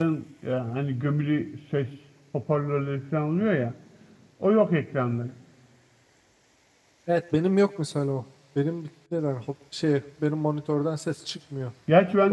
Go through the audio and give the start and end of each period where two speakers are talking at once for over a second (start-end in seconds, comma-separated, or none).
none